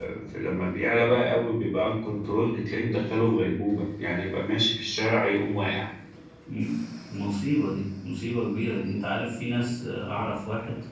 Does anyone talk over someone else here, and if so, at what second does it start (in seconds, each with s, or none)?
none